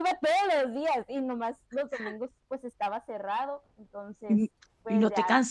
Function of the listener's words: taking over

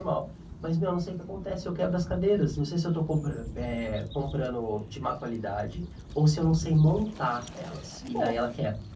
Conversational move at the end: taking over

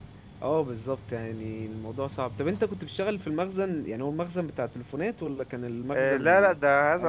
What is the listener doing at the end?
taking over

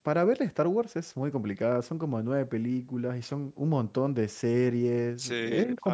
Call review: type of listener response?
listening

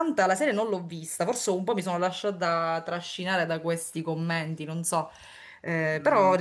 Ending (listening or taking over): taking over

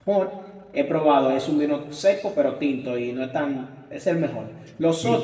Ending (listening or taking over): listening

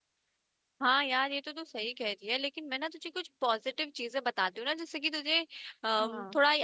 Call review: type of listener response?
listening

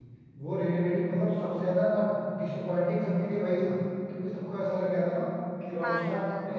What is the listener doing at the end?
listening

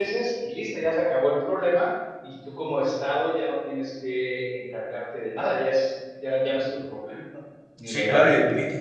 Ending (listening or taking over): taking over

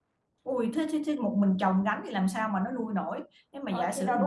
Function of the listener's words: taking over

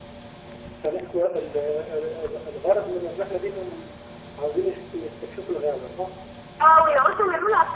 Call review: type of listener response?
taking over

